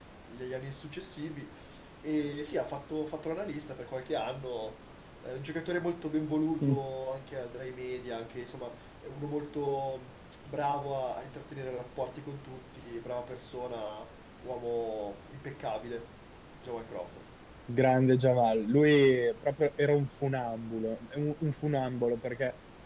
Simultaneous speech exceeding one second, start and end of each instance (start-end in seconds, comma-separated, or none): none